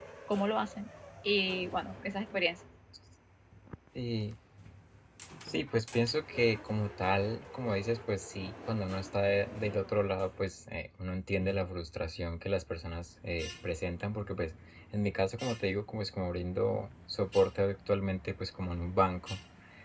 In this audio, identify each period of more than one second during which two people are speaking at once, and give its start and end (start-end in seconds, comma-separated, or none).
none